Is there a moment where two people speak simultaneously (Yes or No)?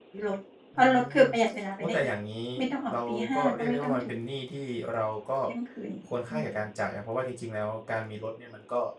Yes